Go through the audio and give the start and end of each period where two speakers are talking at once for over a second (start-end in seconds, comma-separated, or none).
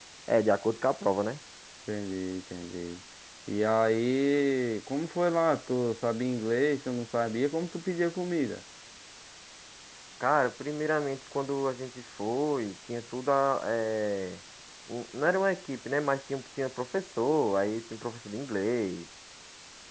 none